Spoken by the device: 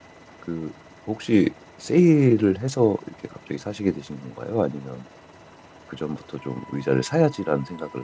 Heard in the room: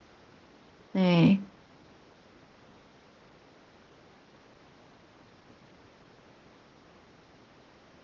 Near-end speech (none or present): present